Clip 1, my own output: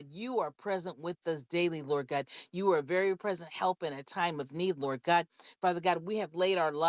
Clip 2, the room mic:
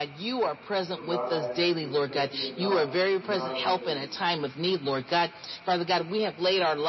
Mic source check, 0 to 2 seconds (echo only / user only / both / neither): both